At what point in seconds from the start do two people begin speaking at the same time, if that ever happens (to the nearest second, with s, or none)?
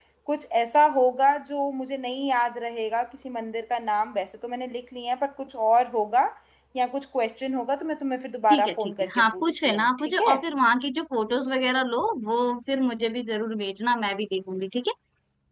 9 s